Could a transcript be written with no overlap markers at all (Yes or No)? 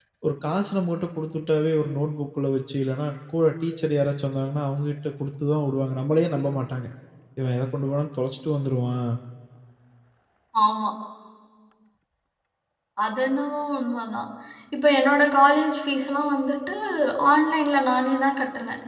Yes